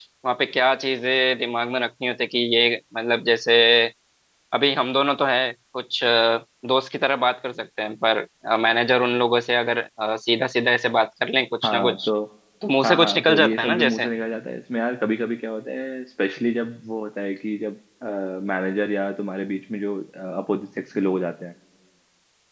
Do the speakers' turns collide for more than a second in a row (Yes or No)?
Yes